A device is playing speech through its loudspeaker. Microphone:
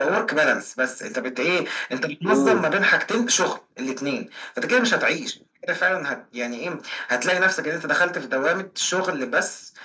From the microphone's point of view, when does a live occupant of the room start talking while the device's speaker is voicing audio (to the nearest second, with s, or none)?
2 s